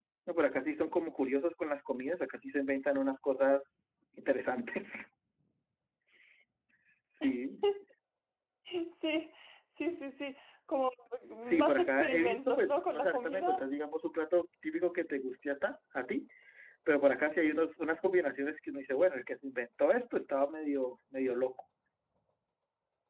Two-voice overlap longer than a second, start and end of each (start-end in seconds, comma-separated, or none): 11.4-13.7